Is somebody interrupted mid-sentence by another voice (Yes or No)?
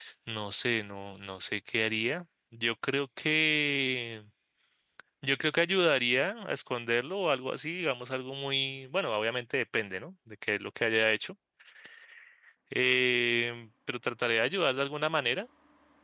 No